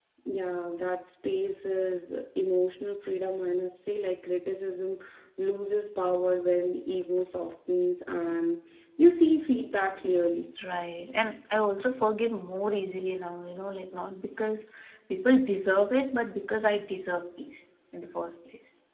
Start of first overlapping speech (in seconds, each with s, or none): none